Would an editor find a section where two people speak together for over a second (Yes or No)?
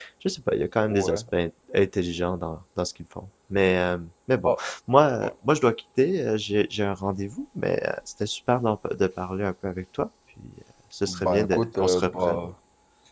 Yes